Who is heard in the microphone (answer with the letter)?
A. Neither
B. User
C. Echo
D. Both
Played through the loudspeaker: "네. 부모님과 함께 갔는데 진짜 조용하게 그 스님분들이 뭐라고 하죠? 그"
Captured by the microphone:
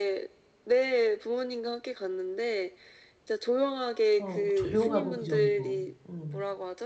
D